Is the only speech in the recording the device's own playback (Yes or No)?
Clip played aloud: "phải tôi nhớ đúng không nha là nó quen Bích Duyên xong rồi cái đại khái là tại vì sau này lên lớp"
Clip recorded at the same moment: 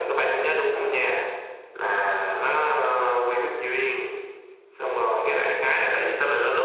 Yes